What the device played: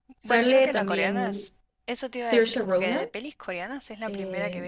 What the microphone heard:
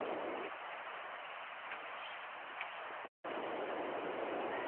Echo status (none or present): none